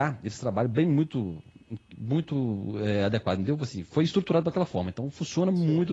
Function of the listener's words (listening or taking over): listening